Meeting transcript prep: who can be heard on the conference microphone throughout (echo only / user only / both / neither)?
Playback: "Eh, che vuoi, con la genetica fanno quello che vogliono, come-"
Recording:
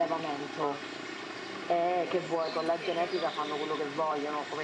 both